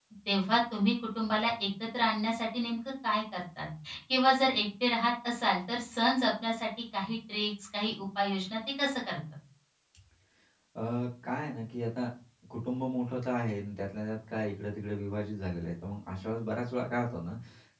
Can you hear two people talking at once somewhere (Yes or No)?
No